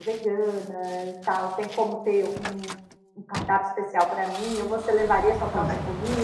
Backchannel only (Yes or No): No